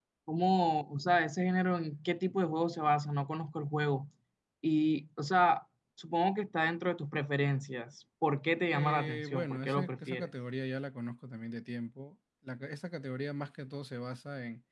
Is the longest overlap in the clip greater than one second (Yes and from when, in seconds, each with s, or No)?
Yes, from 8.7 s